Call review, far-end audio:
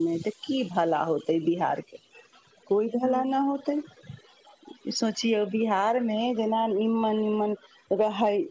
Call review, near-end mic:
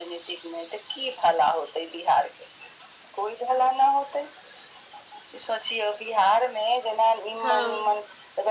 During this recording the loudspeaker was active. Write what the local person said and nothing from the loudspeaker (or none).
हँ